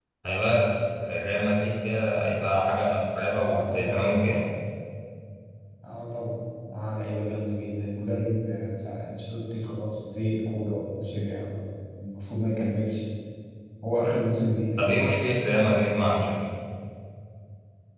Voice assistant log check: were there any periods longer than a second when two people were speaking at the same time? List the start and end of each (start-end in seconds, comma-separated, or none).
none